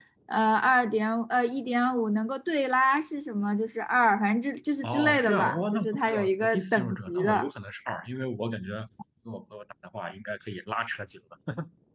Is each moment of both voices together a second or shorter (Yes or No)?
No